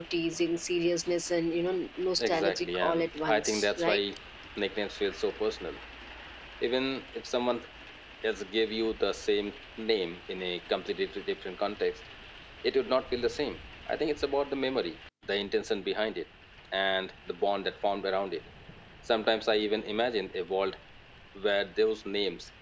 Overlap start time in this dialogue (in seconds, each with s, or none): 2.2 s